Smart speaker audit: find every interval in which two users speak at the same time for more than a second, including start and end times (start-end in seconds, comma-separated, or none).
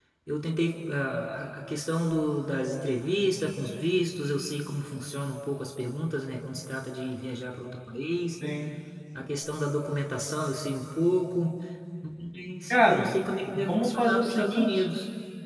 13.5-14.8